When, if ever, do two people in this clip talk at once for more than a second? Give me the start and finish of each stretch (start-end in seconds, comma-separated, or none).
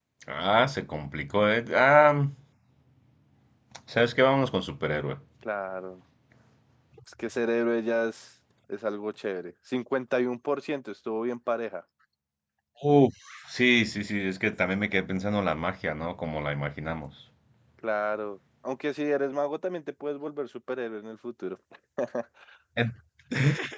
none